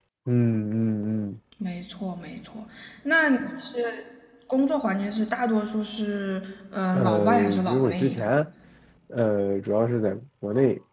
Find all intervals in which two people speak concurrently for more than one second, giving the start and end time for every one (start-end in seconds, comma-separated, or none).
6.9-8.2